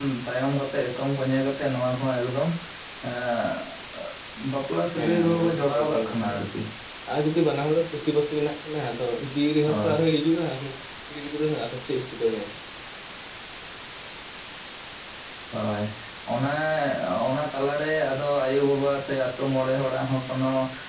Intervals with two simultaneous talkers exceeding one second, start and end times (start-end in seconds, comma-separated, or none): 4.9-6.4